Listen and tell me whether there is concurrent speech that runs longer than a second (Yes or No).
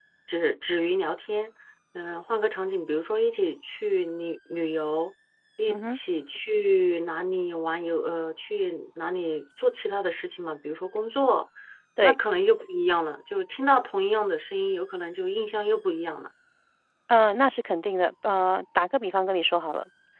No